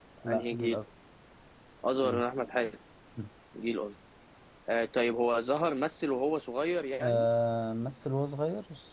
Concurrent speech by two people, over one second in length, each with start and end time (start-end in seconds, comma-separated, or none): none